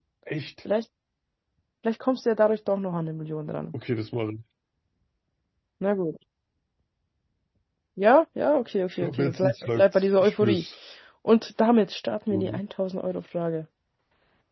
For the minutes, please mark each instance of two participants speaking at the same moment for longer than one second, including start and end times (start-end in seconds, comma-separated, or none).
8.9-10.6